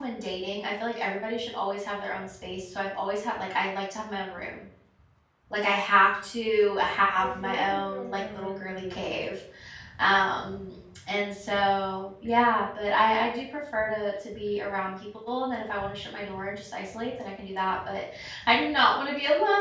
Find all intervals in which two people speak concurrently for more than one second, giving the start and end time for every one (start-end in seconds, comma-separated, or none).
7.2-8.9